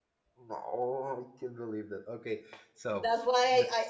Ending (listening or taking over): taking over